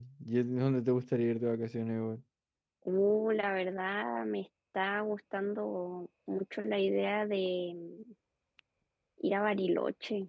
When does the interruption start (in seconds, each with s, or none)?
none